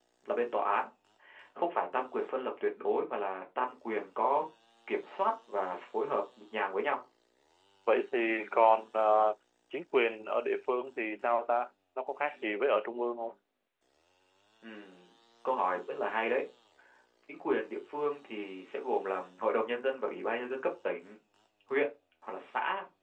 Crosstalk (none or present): none